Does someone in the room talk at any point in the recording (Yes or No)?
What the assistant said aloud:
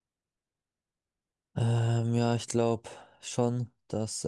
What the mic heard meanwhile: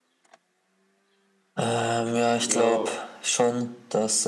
Yes